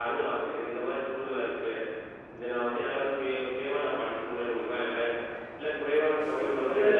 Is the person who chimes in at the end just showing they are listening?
No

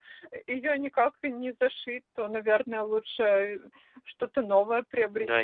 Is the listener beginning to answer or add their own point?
Yes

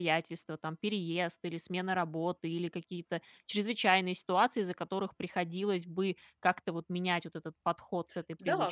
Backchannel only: No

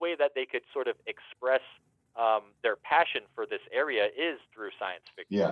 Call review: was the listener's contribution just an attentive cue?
Yes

